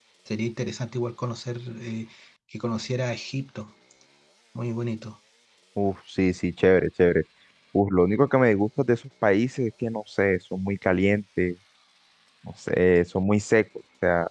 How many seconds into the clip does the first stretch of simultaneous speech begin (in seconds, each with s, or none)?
none